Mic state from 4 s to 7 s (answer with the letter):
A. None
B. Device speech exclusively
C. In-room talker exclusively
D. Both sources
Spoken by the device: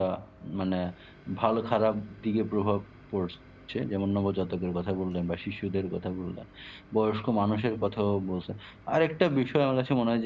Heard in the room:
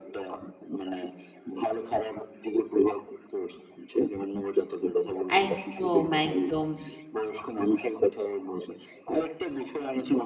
D